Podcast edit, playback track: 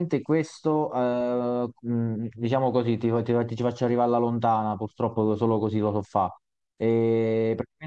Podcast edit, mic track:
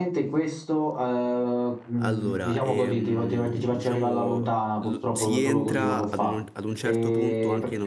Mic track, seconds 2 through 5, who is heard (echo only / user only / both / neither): both